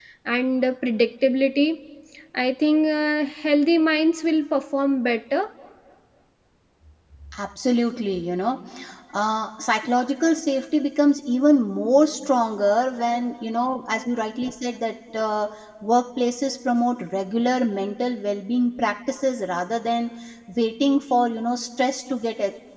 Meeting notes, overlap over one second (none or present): none